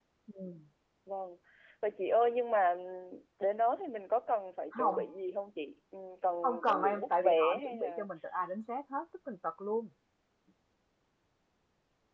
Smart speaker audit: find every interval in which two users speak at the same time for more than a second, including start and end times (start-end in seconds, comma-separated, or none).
6.4-8.1